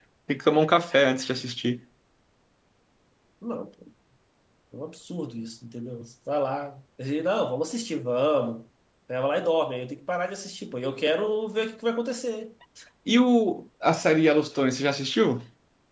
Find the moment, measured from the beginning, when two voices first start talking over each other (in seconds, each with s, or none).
none